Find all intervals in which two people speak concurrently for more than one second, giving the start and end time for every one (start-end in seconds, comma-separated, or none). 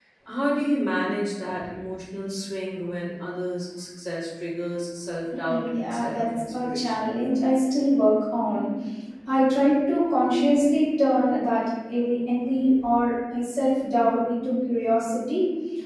5.5-7.1